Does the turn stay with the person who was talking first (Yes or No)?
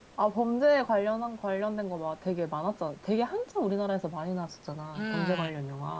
No